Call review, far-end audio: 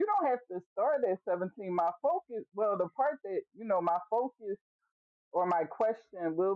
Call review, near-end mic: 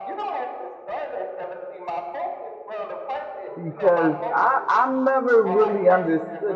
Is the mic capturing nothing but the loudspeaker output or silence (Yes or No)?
No